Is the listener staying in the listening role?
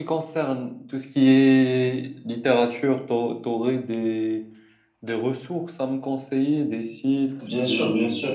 No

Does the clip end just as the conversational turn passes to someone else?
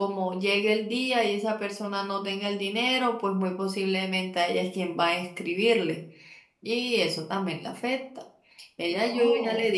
No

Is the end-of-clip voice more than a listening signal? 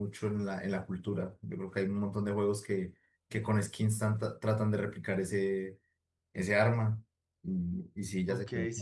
Yes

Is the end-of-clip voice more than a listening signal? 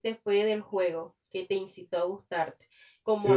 No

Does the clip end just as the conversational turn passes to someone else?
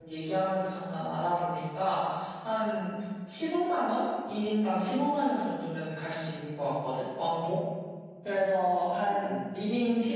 No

